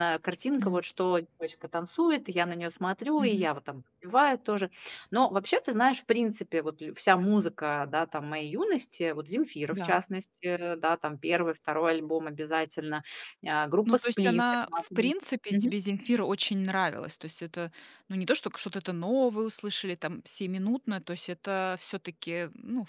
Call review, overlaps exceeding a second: none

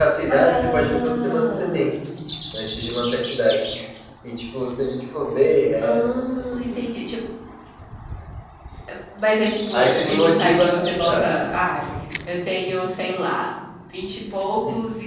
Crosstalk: present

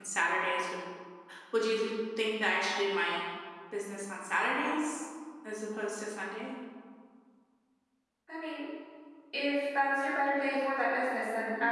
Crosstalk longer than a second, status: none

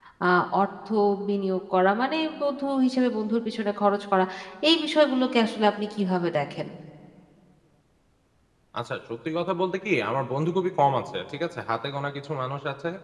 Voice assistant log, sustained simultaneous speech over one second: none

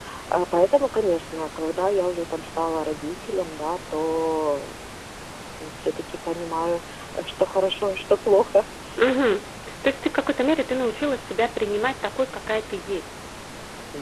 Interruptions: none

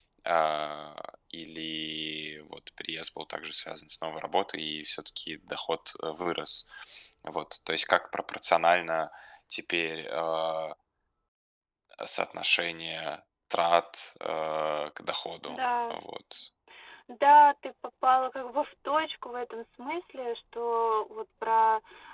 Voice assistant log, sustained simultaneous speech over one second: none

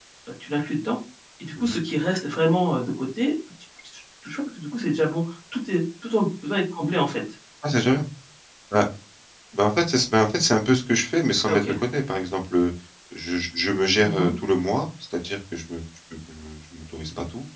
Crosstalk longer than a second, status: none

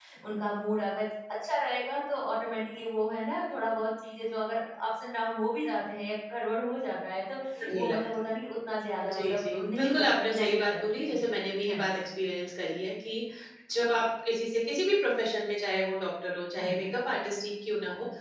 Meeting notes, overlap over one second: present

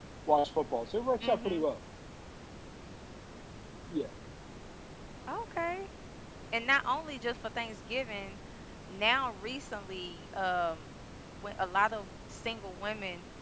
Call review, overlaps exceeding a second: none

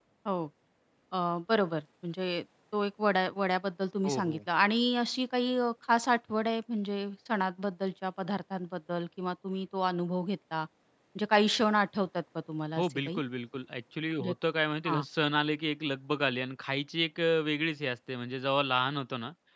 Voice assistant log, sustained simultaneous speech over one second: none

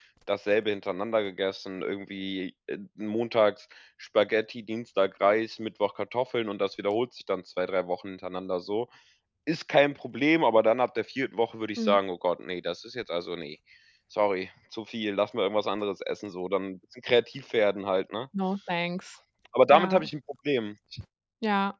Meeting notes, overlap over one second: none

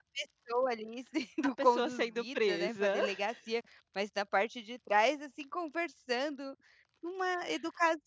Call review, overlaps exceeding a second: present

